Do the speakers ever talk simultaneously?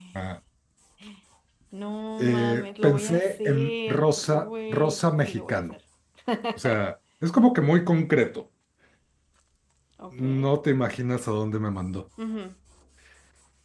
Yes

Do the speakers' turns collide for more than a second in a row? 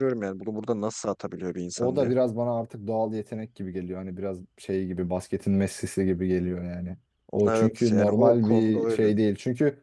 Yes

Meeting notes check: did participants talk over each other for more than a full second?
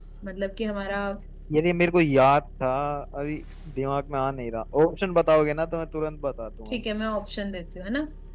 No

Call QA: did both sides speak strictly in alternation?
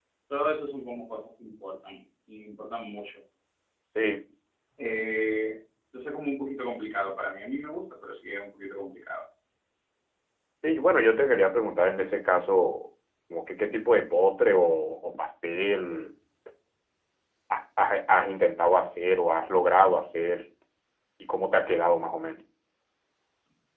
Yes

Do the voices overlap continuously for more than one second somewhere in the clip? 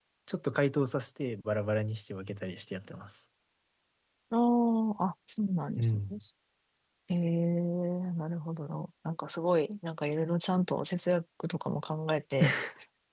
No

